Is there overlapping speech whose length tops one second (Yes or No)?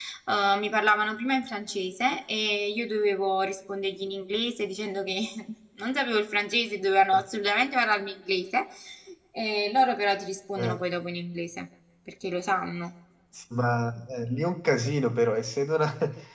No